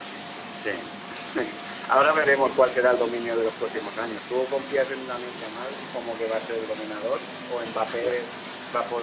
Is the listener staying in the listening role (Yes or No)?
Yes